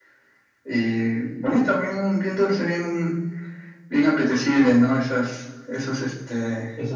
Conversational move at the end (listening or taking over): taking over